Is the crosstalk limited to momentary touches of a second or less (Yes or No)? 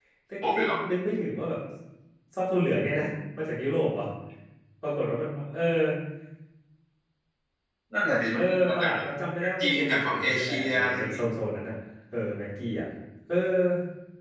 No